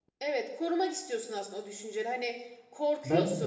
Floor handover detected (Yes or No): No